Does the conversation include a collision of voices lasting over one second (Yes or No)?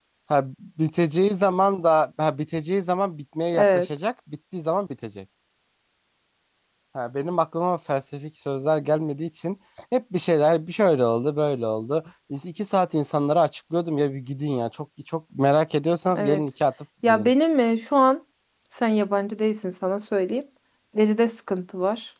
No